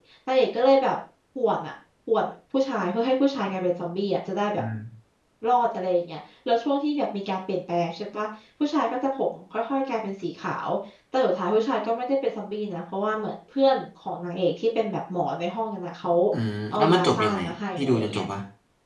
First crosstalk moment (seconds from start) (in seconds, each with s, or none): 16.7 s